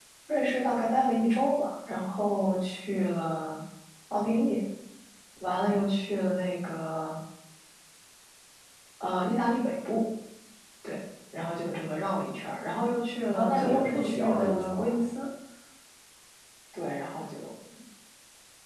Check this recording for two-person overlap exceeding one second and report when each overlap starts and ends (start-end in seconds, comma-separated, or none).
13.3-15.0